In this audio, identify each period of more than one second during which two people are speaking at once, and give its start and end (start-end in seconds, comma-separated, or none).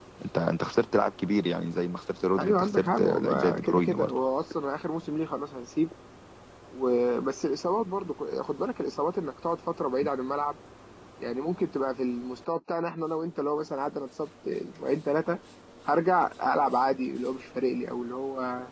2.4-4.2